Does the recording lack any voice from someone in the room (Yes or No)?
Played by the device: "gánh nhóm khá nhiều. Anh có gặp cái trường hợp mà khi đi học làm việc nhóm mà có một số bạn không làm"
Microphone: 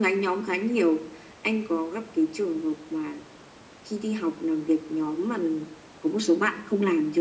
Yes